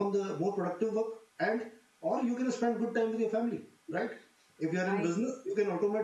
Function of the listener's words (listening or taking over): listening